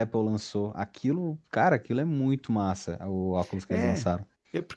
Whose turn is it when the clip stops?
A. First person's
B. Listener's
B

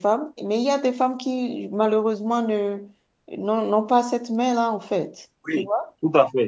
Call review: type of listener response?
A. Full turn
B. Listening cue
A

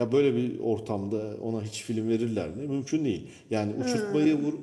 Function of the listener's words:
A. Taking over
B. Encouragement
B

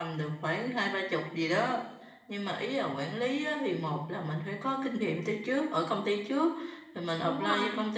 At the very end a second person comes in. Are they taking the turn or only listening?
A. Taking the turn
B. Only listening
B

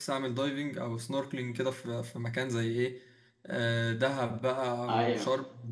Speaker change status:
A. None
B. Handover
A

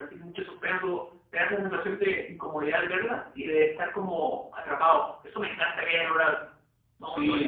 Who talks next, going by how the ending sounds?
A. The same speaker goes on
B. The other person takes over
B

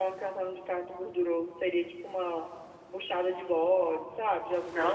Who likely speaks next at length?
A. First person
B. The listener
B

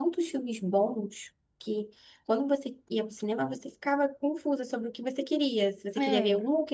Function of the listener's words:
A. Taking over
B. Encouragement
B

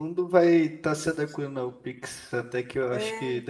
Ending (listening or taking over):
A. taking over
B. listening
B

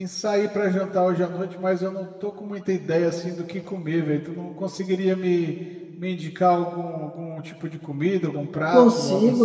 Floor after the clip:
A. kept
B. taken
B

